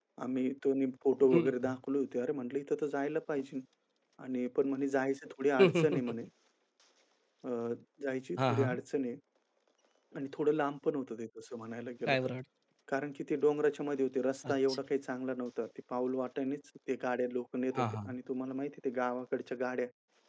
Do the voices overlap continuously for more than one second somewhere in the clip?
No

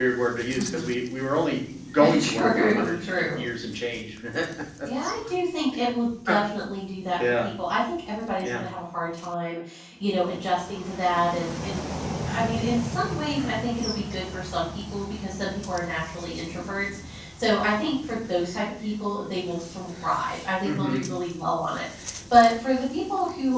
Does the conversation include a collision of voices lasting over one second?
Yes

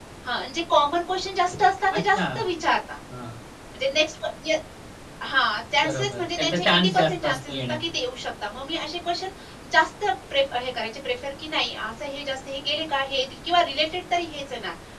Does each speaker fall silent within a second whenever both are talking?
No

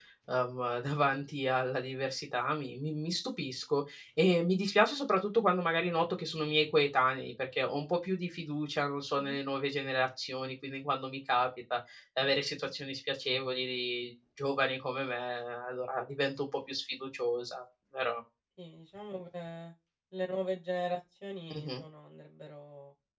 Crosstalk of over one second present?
No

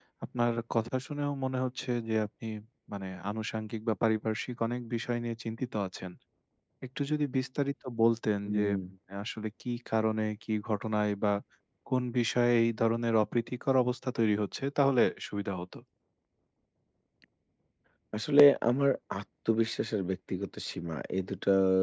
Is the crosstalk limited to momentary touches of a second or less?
Yes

